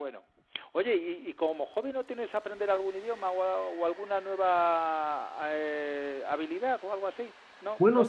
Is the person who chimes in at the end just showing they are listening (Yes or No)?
No